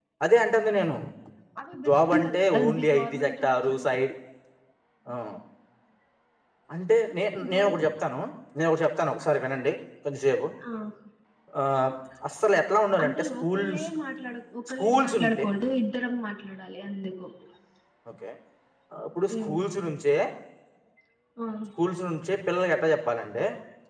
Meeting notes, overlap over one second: present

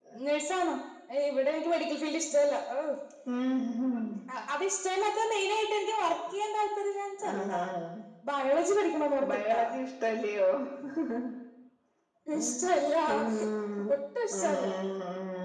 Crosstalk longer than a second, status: none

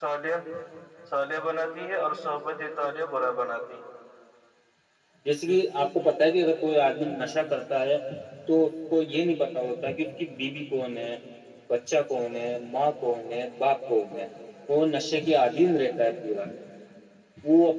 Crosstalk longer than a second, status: none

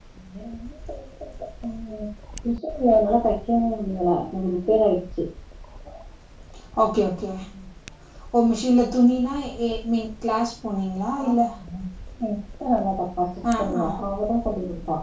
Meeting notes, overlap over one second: none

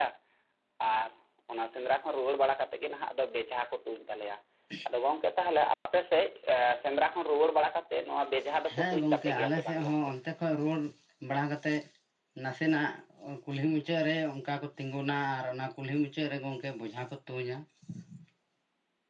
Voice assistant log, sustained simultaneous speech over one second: present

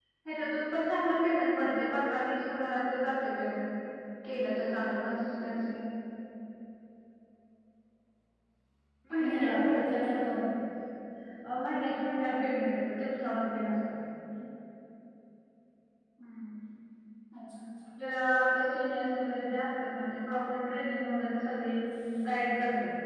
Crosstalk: present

